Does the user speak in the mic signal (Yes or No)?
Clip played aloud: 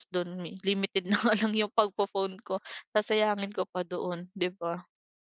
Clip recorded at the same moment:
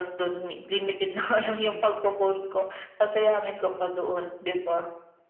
Yes